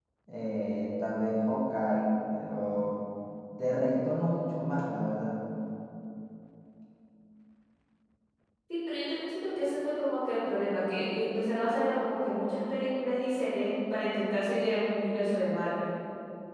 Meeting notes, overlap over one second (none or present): none